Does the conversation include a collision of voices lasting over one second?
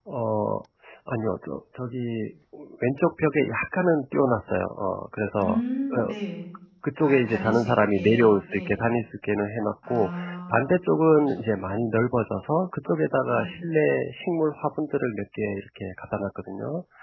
Yes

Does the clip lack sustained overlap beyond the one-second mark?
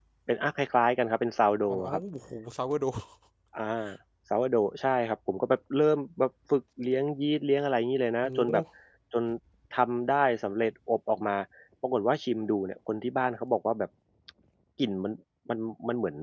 Yes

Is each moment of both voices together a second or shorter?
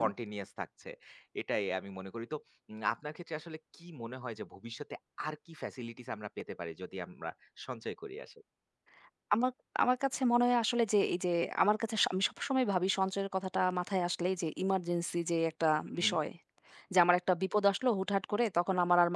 Yes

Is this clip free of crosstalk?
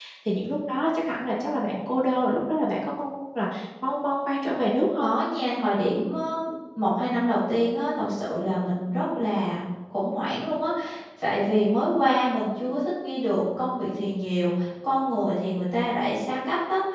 Yes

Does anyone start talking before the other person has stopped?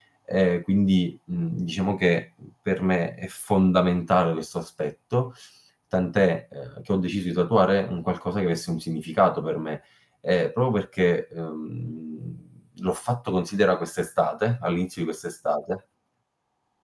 No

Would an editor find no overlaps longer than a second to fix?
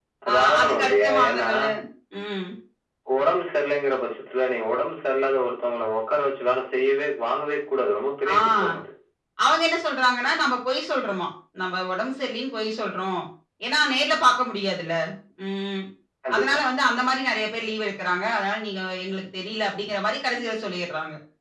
No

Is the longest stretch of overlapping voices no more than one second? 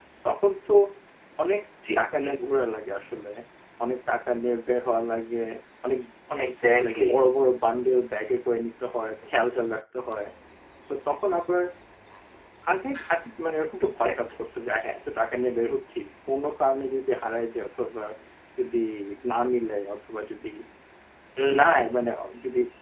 Yes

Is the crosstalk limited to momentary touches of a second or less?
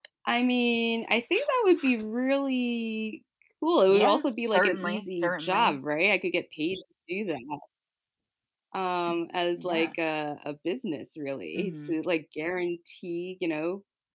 No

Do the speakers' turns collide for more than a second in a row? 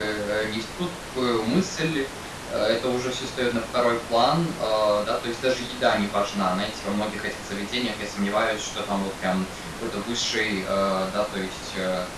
No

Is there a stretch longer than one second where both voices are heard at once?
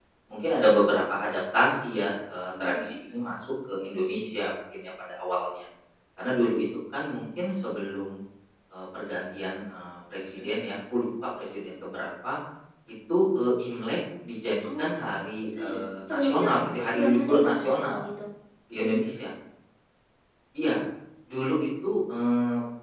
Yes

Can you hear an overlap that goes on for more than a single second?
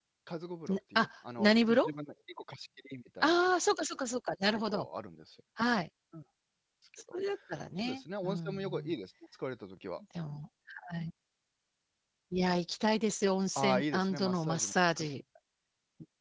Yes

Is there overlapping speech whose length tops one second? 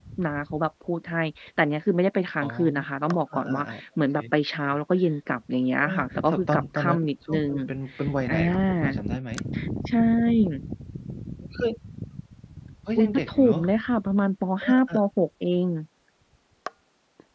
Yes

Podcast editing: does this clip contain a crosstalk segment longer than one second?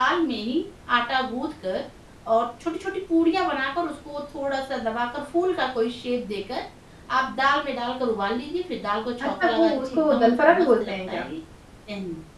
Yes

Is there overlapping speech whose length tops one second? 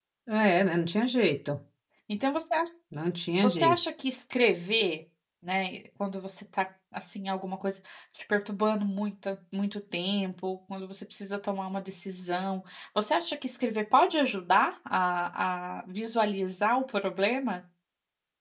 No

